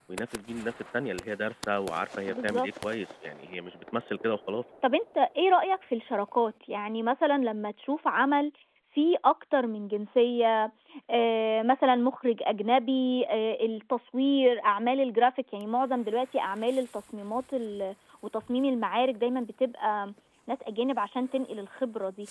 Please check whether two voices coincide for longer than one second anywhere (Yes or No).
No